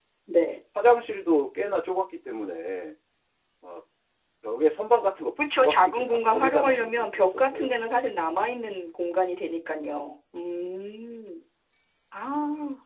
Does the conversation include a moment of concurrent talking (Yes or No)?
Yes